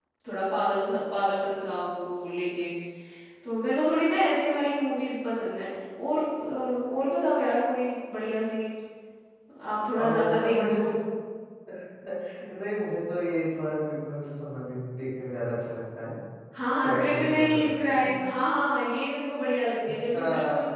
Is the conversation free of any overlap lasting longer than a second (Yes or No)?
No